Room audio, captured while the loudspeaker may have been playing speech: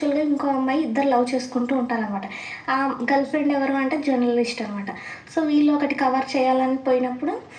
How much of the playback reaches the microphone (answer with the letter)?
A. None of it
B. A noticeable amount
B